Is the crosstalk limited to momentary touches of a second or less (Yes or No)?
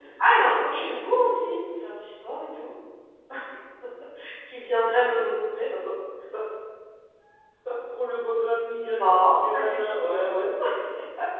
No